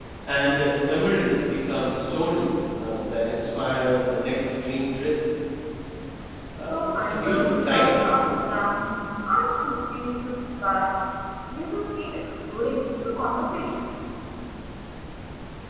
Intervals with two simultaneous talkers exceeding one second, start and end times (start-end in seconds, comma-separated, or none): 6.6-8.2